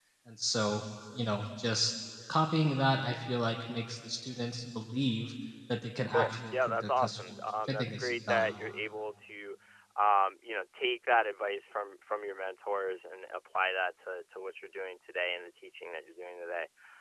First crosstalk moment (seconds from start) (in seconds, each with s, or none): 6.1 s